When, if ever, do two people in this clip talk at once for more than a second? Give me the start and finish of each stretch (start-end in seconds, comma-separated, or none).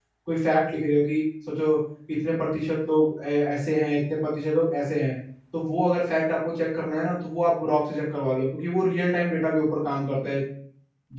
none